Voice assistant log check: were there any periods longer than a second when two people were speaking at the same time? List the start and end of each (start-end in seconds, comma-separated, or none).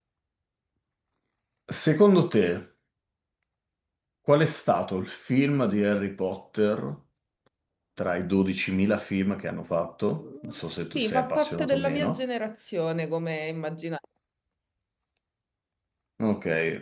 10.5-12.2